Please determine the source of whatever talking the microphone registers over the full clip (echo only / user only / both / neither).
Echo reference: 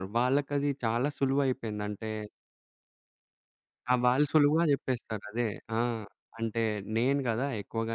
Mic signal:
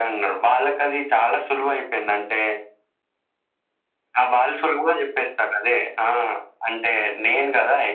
echo only